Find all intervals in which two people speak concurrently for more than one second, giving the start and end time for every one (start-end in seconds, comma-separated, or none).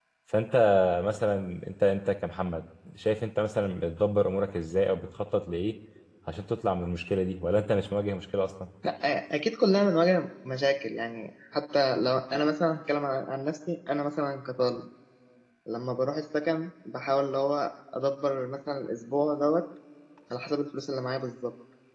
none